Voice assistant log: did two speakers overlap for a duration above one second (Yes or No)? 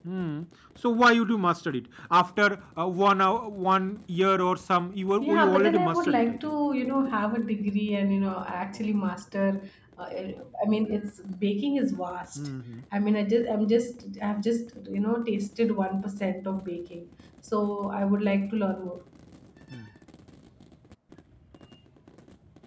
Yes